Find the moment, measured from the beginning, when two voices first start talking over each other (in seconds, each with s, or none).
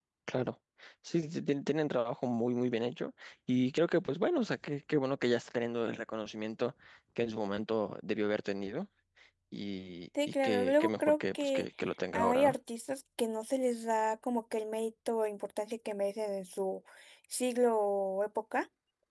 10.4 s